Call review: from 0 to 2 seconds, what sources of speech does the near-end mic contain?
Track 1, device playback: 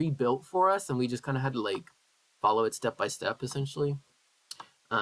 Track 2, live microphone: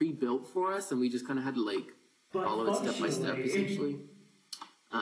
echo only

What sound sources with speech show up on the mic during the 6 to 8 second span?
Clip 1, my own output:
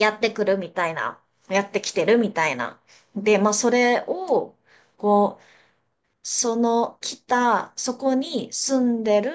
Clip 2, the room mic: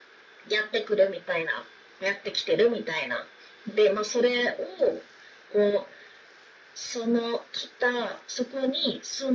echo only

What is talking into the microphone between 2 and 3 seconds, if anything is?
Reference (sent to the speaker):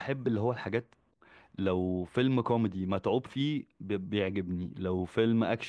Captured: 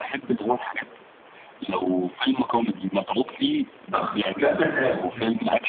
echo only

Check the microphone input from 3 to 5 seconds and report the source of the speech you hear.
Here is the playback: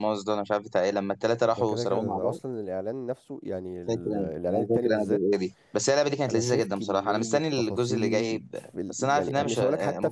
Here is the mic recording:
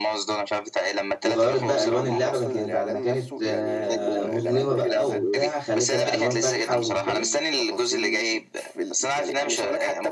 both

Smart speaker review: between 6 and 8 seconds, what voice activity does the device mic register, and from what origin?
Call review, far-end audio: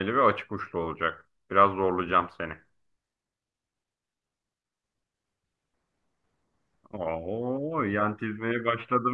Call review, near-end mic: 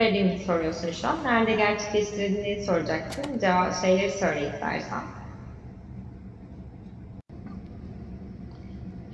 neither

